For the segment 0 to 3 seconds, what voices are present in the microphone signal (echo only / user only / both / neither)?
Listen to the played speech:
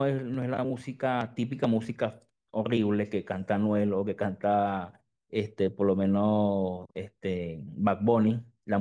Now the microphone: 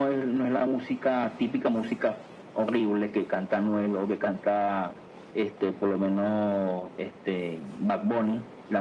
echo only